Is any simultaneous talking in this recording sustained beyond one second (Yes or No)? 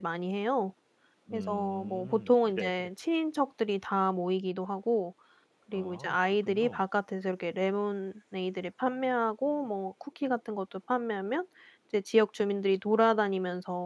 Yes